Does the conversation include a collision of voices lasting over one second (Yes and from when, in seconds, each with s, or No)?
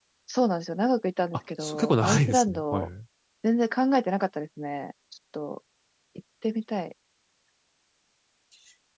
Yes, from 1.6 s